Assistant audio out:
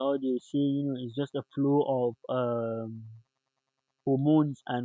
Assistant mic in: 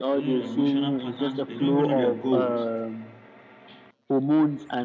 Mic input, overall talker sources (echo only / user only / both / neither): both